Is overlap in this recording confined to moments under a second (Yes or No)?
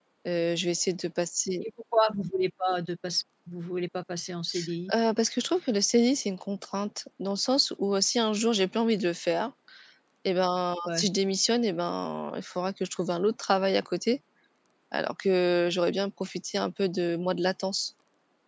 Yes